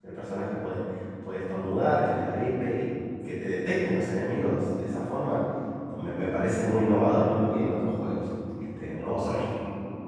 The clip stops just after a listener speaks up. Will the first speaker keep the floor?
No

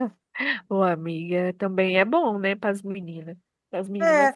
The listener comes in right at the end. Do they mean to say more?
Yes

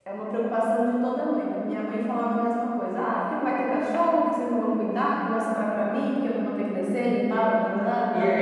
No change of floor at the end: No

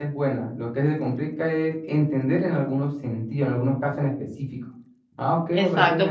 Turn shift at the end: Yes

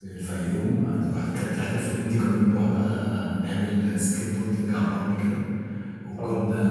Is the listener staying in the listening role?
Yes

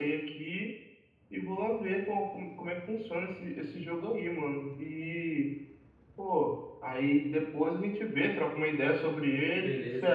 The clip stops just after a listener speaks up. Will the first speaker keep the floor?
No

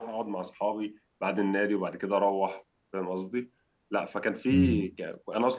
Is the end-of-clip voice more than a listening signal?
No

